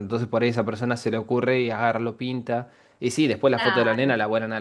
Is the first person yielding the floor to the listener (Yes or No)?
No